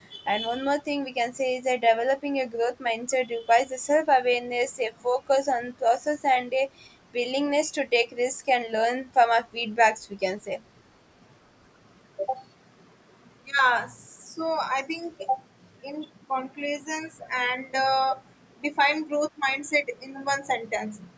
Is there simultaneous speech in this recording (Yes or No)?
No